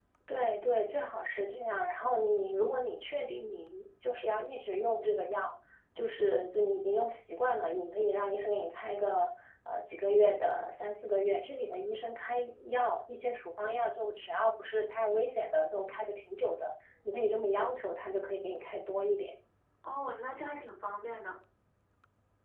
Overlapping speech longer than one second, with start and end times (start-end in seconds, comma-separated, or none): none